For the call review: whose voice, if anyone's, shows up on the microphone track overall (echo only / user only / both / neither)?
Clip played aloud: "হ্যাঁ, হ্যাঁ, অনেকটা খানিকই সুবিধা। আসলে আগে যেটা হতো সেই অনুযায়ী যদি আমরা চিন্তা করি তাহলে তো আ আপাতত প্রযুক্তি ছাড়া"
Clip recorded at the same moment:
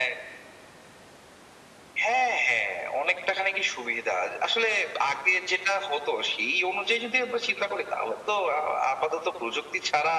echo only